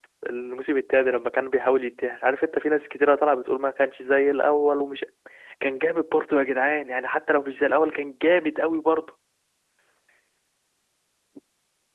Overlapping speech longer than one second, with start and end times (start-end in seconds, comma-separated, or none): none